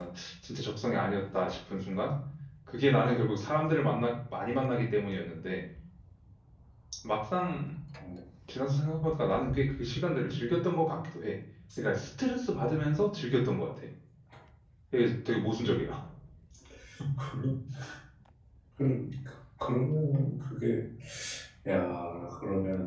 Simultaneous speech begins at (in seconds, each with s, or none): none